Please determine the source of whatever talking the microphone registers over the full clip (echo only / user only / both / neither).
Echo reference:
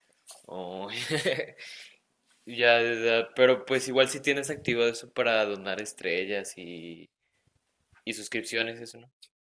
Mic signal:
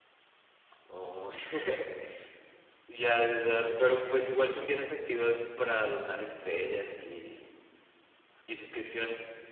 both